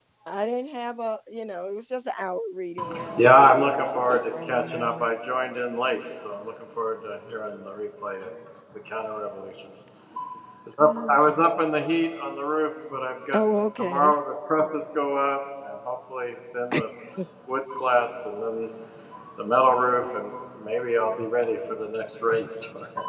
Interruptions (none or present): present